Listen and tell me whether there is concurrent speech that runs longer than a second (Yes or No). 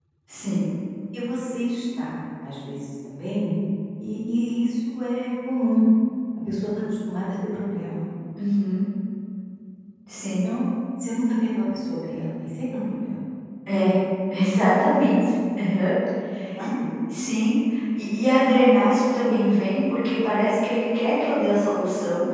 No